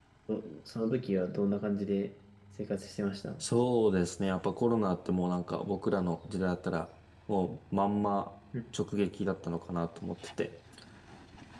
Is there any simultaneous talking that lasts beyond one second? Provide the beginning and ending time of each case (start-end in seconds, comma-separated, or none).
none